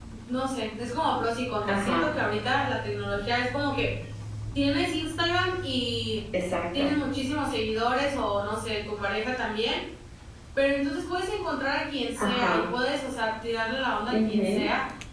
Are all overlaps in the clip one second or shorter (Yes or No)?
Yes